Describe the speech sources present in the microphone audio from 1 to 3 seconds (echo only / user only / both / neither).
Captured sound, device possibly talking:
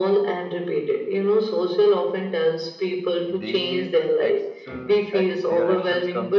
echo only